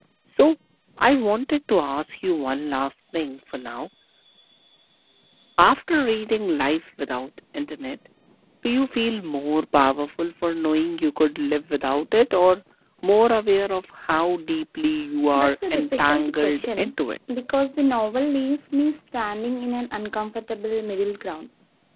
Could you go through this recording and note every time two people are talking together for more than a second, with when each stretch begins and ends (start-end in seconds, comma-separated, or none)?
15.3-16.9